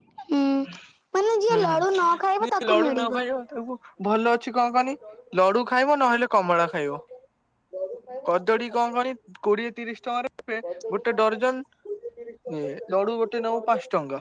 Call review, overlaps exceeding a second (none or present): present